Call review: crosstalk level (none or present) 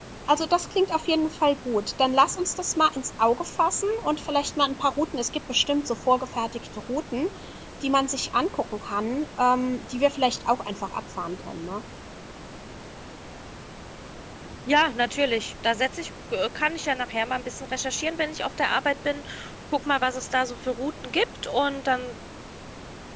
none